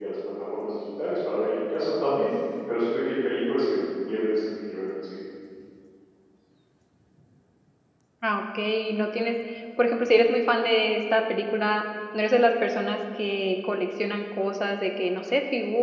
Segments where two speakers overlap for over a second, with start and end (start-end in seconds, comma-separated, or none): none